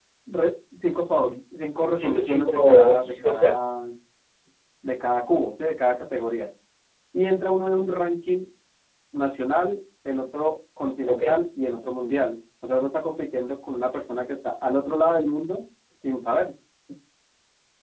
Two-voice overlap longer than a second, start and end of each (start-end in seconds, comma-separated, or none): 1.9-3.6